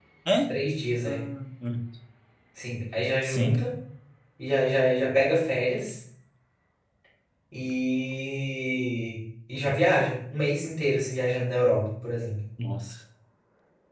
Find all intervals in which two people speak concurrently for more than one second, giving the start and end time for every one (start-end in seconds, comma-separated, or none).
none